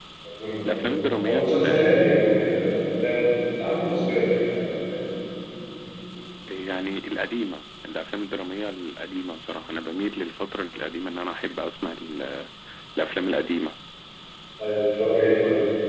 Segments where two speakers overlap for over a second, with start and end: 0.7-2.1

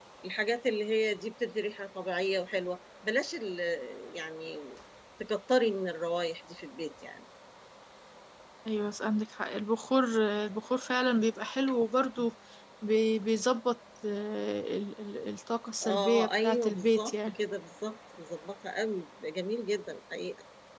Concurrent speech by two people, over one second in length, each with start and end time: 15.8-17.3

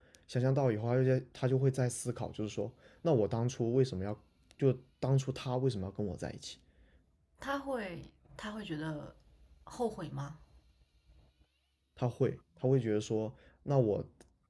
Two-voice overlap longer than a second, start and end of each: none

